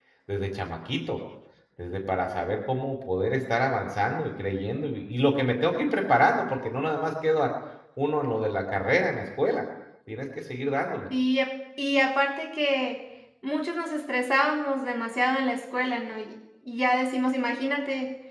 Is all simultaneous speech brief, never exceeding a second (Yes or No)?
Yes